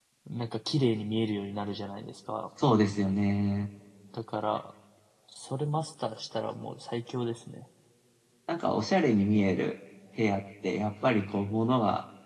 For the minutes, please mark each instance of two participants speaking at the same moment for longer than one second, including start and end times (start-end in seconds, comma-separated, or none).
none